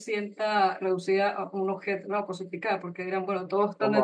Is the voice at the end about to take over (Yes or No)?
No